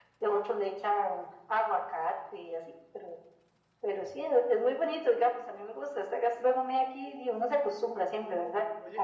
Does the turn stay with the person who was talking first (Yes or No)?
No